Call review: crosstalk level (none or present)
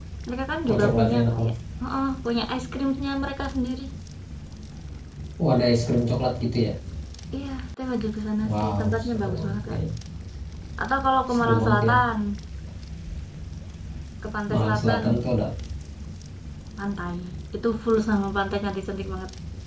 present